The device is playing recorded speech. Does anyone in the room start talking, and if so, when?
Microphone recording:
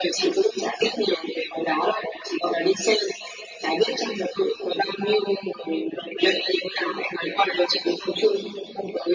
none

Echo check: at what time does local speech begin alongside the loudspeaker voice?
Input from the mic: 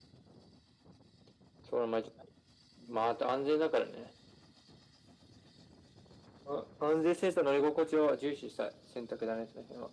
none

